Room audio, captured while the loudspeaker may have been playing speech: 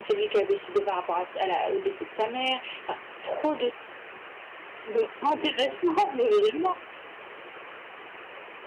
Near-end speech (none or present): none